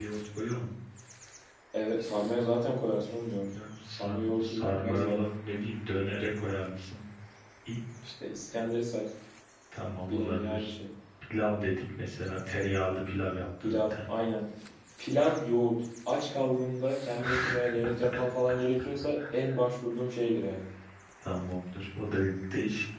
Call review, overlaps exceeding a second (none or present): present